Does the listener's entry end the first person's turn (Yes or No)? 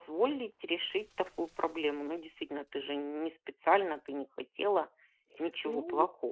Yes